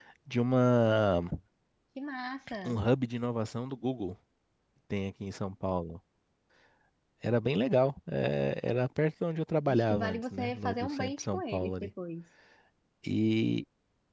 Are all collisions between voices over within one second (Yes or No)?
No